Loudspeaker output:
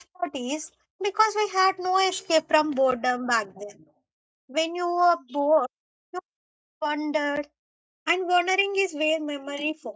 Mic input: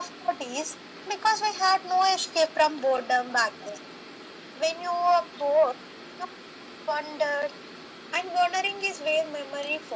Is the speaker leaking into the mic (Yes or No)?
Yes